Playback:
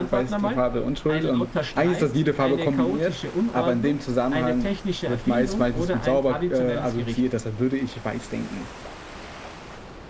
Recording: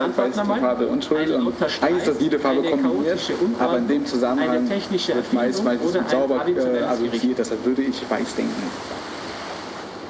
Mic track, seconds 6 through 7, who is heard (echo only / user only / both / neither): echo only